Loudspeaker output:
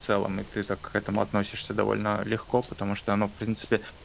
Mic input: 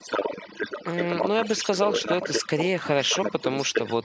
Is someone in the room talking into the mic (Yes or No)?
Yes